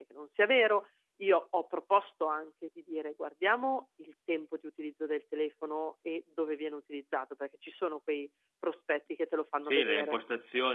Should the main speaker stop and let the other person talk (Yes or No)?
Yes